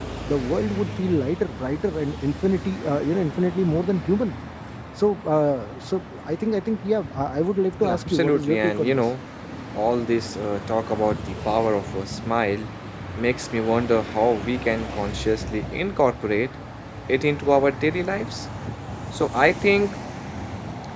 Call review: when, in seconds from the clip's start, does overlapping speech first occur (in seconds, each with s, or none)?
7.8 s